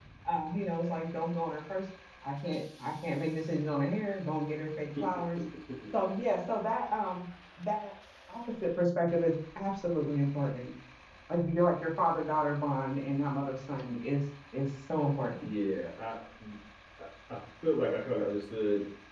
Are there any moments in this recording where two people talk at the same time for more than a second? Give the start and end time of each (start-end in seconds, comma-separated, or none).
none